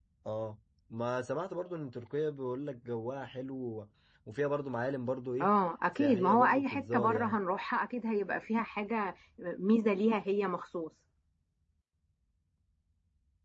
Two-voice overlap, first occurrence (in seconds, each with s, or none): 6.0 s